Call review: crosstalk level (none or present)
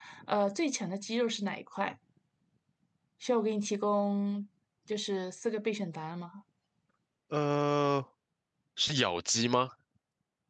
none